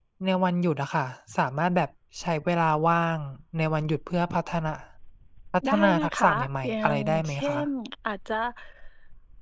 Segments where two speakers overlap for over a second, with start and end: 5.7-7.7

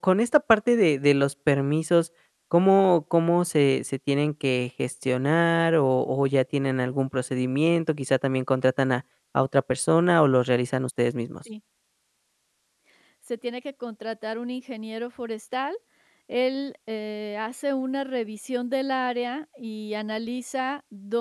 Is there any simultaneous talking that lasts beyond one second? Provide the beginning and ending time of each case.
none

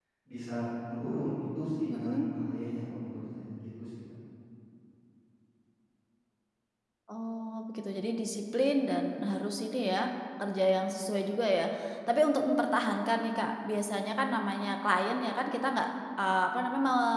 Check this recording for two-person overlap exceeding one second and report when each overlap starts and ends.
none

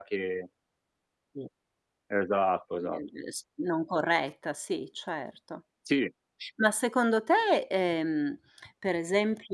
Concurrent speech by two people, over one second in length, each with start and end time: none

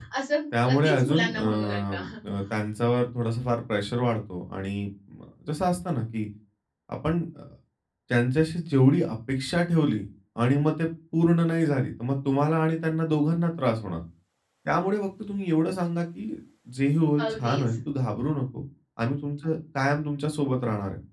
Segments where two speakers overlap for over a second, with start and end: 0.7-2.0

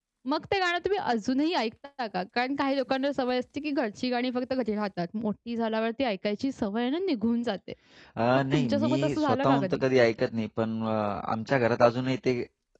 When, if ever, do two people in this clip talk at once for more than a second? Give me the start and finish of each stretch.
8.5-9.8

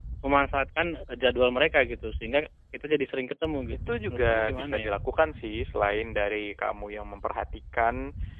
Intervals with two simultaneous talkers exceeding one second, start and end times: 3.7-5.0

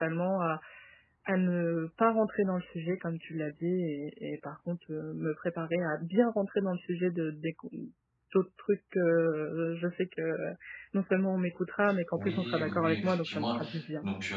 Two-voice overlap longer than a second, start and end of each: 12.2-13.5

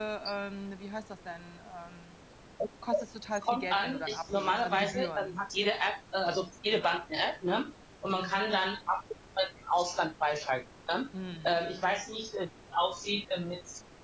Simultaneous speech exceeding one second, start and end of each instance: 3.4-5.3

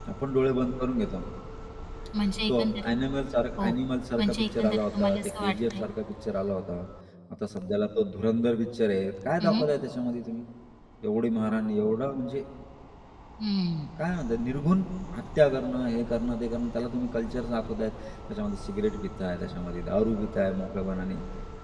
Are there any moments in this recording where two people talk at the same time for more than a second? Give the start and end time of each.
4.2-5.8

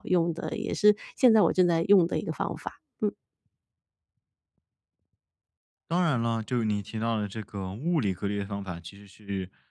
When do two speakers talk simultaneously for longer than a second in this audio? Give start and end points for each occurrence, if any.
none

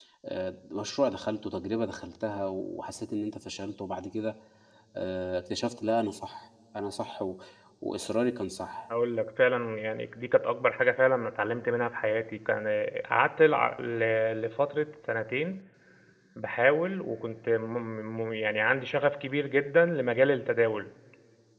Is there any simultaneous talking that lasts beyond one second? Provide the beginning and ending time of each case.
none

